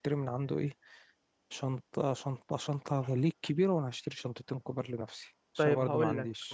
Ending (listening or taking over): taking over